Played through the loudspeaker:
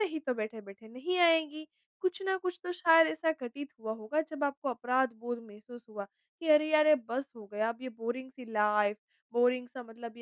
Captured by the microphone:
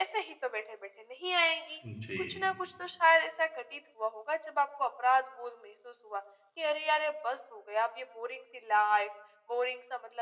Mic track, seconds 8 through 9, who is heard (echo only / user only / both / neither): echo only